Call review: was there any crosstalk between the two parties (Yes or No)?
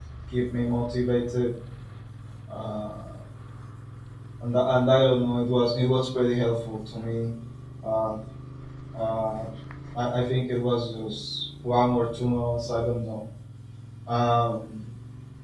No